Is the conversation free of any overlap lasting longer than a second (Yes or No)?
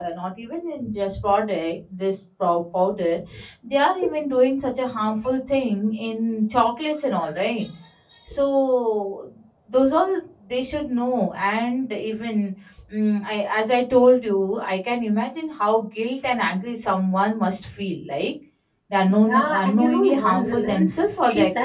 No